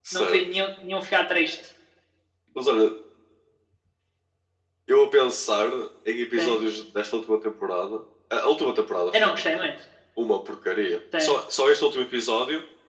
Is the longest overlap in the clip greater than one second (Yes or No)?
No